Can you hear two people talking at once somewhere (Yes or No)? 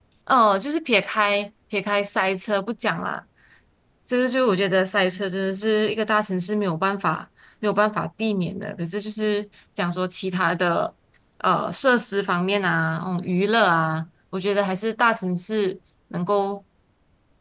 No